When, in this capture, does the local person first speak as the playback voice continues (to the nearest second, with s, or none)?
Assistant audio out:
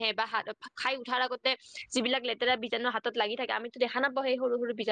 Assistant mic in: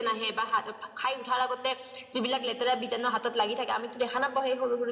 none